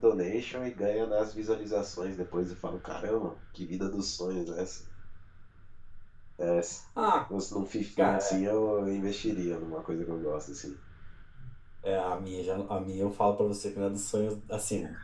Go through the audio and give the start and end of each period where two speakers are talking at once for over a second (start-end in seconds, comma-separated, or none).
none